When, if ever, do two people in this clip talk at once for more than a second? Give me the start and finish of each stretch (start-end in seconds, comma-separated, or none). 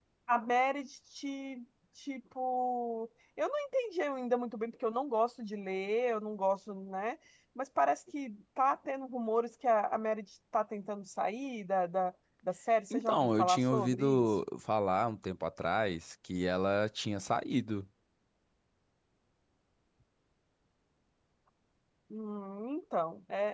12.9-14.2